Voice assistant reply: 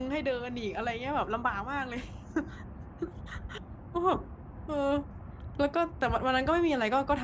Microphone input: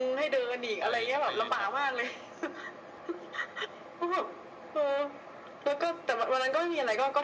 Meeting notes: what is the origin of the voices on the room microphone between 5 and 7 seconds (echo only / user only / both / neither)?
echo only